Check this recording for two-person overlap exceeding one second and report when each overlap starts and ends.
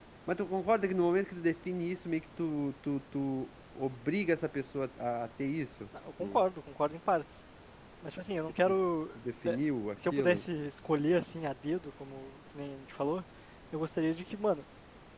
none

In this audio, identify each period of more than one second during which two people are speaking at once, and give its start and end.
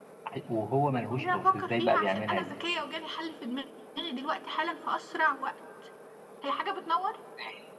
1.1-2.5

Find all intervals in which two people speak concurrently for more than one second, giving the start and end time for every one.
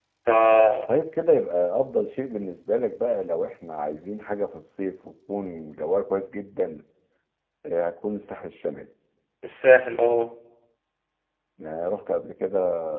none

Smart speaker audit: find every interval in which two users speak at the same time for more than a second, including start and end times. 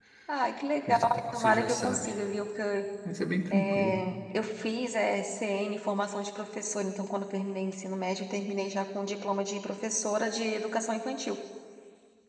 0.9-2.1

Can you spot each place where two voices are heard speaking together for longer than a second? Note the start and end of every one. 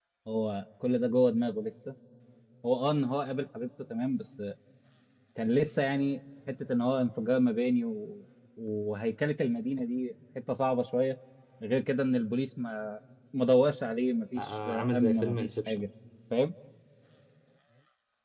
14.4-15.8

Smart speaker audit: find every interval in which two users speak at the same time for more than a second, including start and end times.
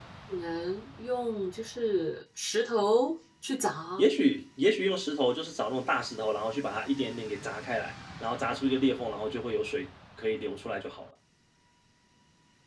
none

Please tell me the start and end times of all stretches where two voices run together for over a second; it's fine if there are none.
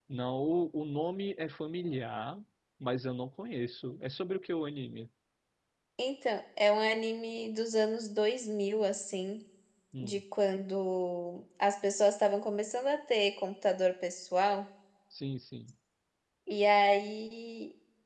none

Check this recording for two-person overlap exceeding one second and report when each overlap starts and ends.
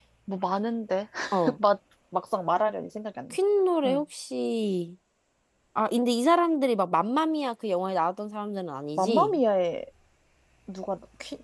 none

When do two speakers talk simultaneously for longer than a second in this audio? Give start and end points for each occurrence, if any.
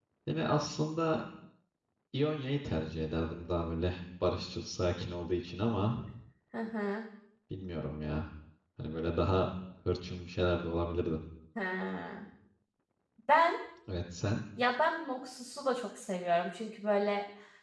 none

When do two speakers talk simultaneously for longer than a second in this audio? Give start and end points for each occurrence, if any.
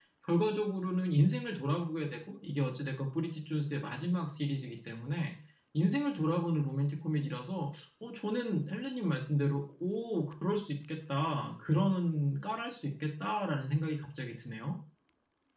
none

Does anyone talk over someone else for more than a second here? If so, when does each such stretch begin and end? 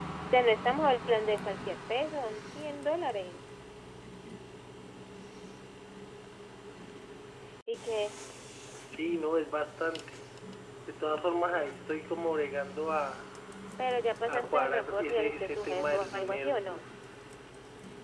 14.3-16.6

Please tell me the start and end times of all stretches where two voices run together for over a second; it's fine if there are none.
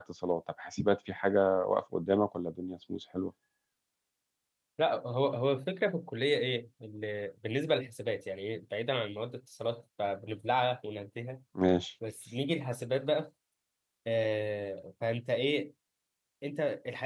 none

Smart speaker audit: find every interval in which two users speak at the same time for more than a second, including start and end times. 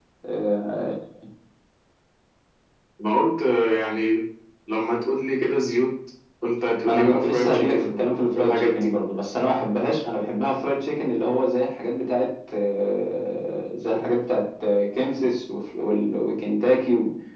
6.8-8.9

